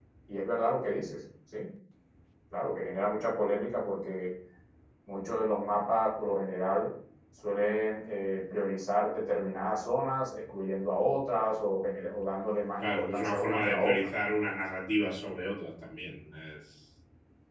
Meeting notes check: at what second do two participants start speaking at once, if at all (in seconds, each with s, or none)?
12.8 s